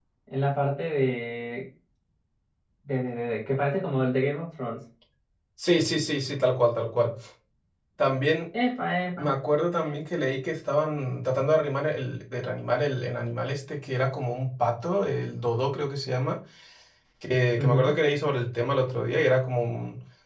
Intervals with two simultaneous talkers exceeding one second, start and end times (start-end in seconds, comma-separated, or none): none